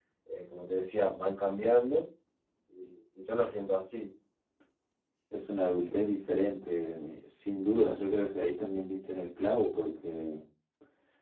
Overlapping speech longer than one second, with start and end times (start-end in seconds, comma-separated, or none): none